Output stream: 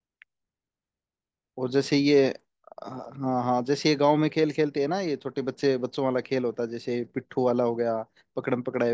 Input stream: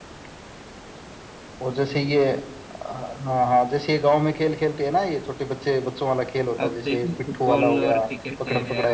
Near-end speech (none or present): present